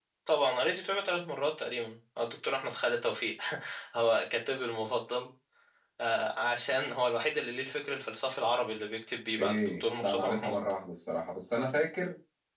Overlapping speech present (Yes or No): Yes